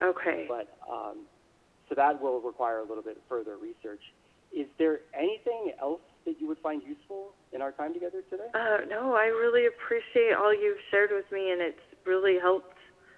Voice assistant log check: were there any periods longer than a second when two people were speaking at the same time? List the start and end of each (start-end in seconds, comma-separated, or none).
none